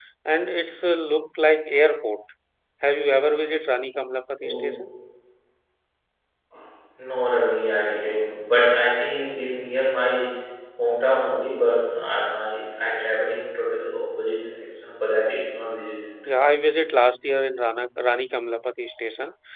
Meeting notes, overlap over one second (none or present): none